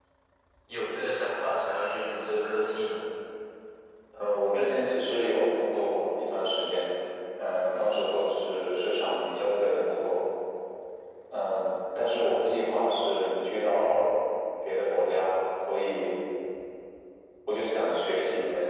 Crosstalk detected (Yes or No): No